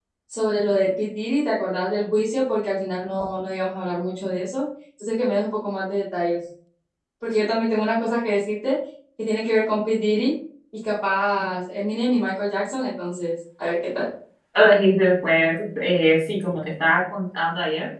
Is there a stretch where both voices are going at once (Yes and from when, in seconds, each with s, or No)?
No